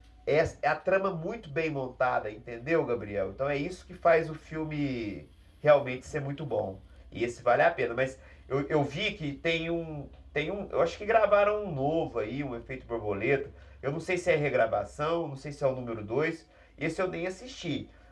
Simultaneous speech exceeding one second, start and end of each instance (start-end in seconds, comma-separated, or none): none